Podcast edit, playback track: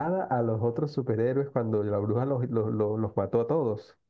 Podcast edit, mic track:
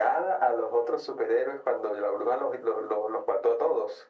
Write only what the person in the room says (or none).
none